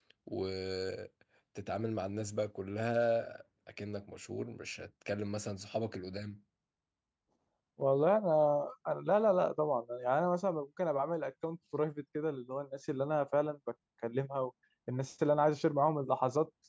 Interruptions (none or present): none